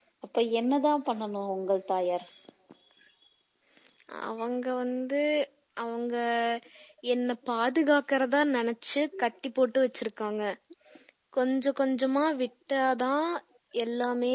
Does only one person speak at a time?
Yes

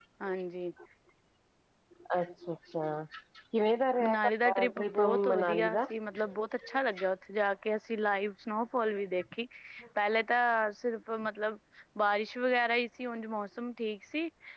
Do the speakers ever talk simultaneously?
Yes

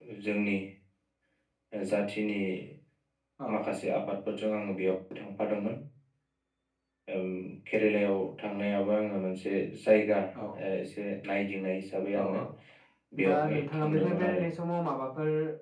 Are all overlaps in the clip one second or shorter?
No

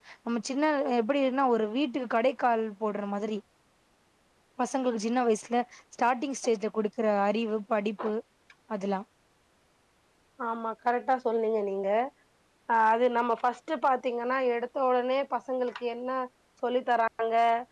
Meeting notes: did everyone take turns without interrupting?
Yes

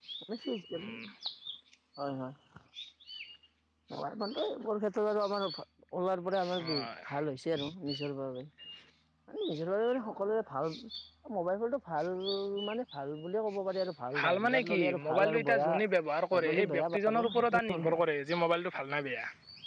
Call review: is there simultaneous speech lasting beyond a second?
Yes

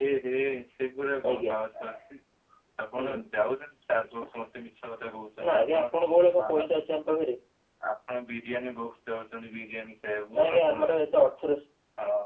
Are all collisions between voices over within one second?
Yes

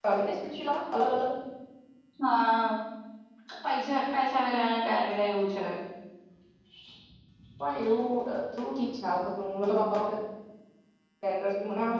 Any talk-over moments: No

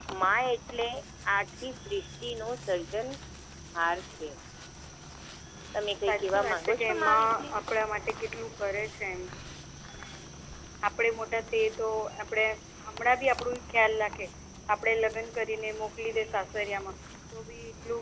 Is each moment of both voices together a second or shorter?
No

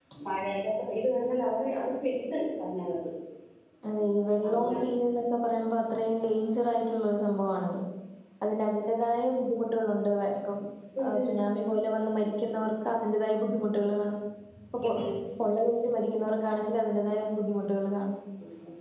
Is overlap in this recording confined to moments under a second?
Yes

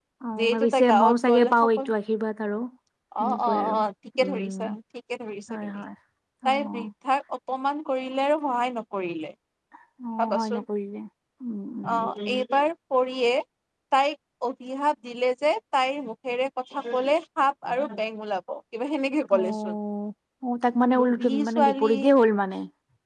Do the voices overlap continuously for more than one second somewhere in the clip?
Yes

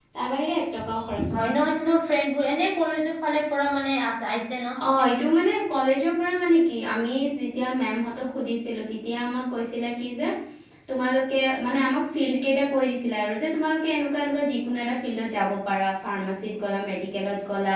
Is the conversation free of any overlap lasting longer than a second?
Yes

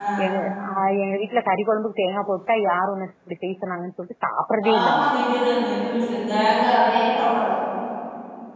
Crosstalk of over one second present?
No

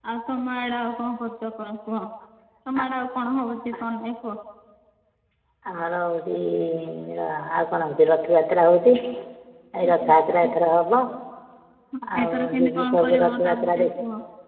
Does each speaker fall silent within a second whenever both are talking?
No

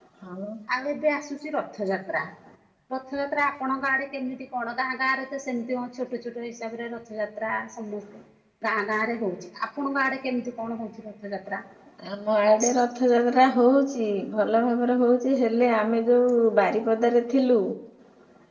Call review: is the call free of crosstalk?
Yes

